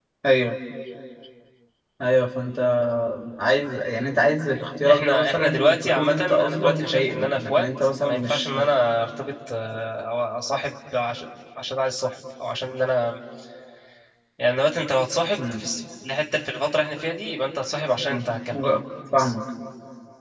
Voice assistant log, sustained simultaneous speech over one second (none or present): present